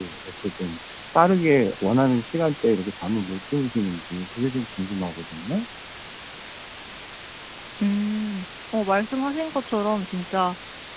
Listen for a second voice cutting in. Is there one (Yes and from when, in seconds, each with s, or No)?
No